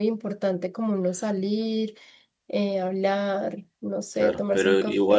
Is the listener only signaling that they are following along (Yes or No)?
No